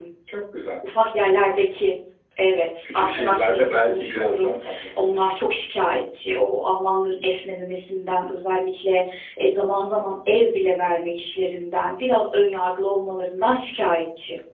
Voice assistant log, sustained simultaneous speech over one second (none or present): present